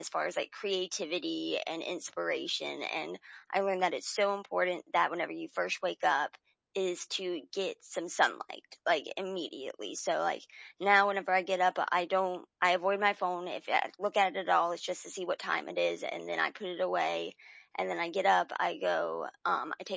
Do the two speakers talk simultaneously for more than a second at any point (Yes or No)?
No